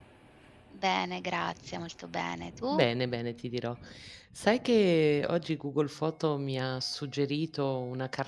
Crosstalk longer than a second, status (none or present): none